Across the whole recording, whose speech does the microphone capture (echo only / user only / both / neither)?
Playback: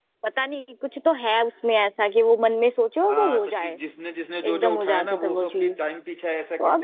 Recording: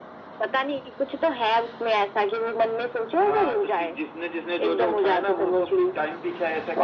echo only